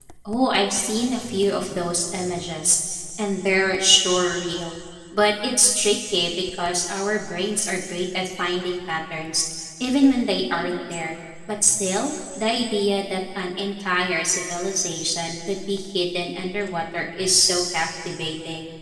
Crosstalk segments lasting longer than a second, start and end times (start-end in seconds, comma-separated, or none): none